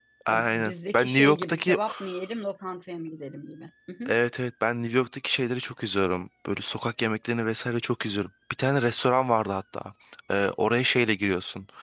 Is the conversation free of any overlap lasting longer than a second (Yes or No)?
No